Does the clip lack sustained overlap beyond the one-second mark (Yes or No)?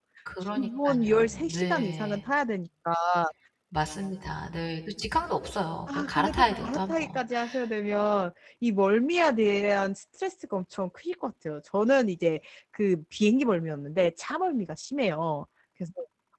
No